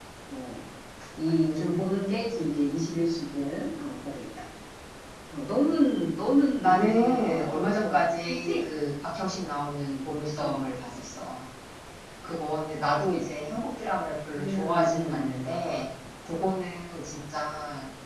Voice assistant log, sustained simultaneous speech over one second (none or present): present